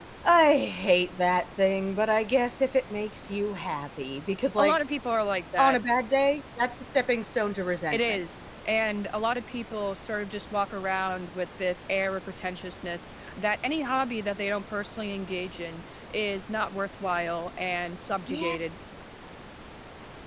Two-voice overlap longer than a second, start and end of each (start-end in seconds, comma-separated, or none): none